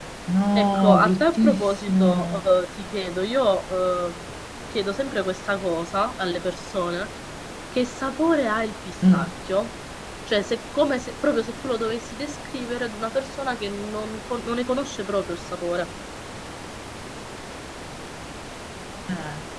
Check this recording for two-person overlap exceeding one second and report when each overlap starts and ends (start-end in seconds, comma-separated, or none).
0.6-2.4